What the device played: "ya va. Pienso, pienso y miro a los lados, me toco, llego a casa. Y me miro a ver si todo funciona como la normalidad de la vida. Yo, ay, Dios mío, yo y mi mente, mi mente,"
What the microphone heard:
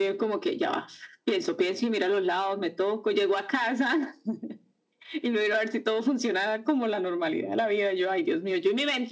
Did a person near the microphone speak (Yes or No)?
No